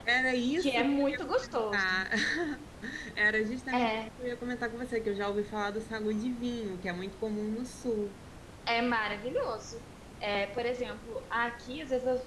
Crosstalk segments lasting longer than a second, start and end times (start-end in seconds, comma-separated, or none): 0.6-1.8